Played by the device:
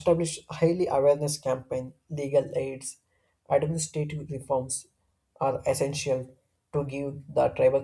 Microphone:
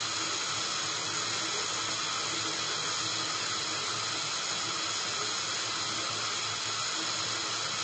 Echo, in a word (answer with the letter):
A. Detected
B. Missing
B